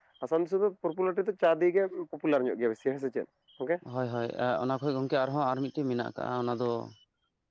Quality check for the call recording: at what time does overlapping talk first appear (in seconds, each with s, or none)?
none